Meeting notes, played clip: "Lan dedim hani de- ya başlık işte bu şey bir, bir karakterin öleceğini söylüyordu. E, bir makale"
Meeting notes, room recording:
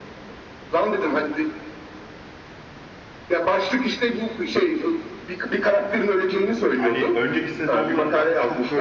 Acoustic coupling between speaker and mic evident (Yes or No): Yes